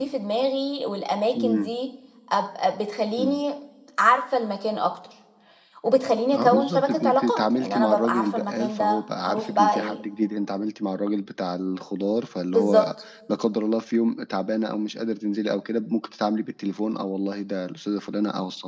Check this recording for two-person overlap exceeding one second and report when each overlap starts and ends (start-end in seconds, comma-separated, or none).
6.3-10.0